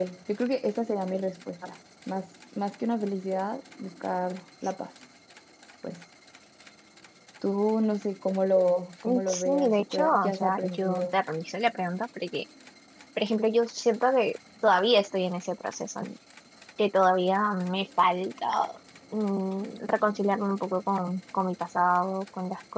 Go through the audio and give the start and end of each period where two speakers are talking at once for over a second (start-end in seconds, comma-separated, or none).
9.3-11.2